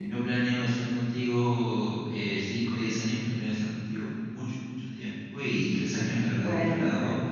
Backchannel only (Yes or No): Yes